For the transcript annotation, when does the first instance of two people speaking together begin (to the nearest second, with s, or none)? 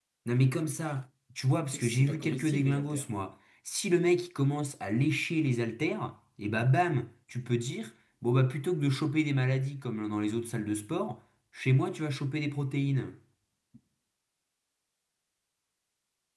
2 s